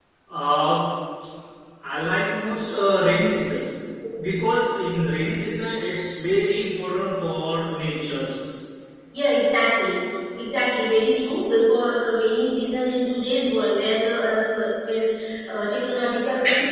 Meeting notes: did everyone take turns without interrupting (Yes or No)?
Yes